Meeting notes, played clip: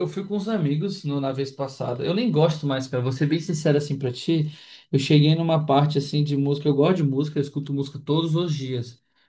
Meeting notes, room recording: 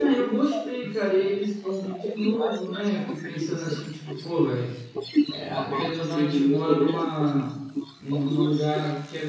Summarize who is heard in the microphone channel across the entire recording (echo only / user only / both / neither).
both